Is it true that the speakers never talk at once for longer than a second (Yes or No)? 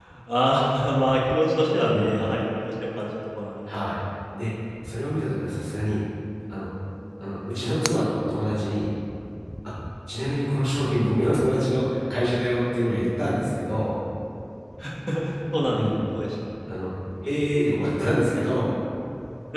Yes